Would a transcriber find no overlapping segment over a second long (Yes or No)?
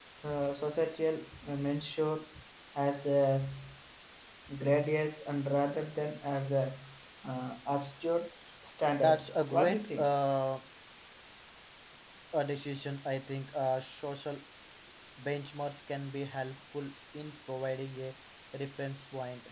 No